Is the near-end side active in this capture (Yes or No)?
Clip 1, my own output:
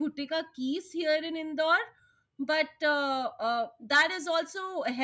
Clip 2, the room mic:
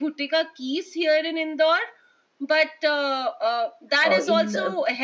Yes